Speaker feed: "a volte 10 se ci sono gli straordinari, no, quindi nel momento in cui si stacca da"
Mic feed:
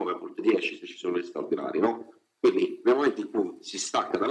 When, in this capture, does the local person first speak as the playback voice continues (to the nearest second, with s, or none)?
none